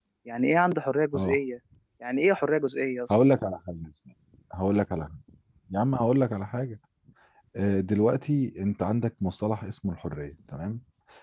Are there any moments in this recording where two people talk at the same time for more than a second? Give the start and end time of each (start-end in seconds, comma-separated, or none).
none